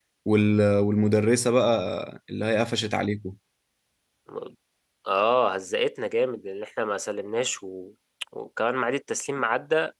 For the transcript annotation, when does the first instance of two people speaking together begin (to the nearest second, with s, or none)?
none